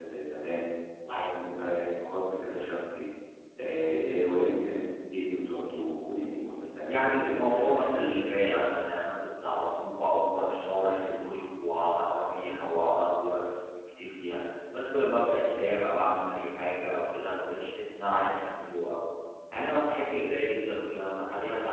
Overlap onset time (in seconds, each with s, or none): 6.8 s